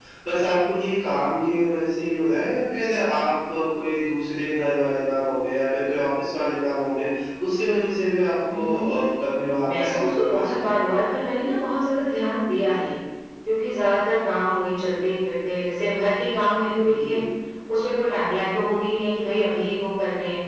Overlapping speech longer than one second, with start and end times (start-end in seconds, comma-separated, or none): 9.7-11.0